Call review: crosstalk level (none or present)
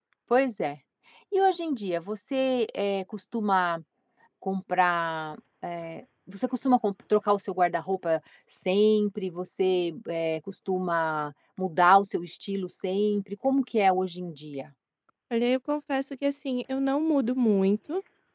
none